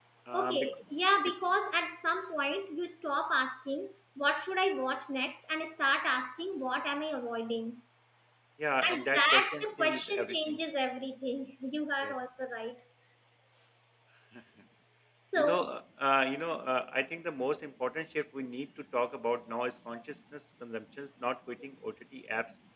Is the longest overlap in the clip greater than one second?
Yes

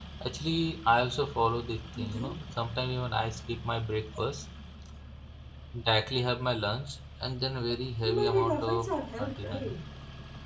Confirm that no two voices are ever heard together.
No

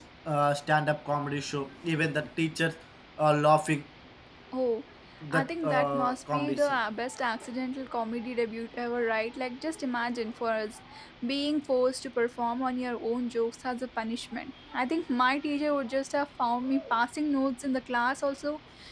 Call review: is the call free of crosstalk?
No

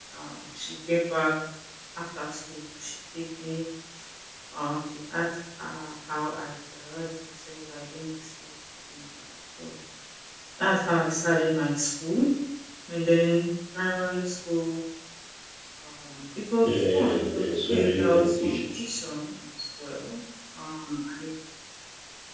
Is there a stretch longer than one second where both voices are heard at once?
Yes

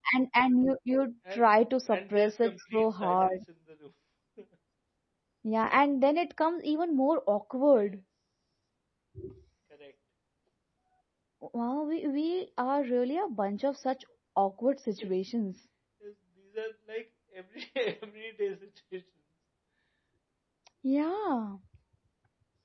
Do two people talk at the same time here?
Yes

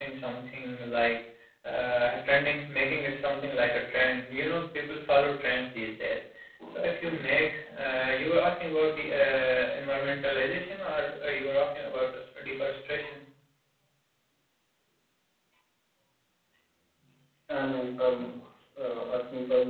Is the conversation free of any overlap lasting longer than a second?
Yes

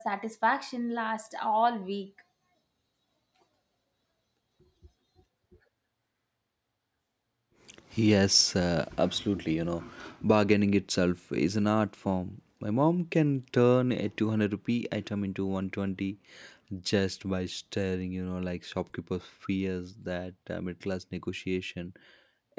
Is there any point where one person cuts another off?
No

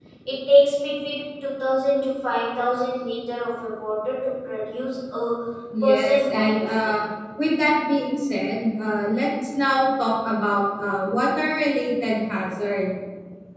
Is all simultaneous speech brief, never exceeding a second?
No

